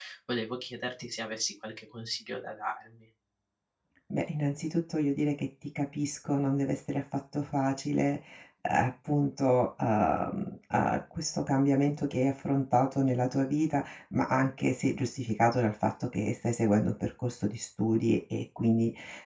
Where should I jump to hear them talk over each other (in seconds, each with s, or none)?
none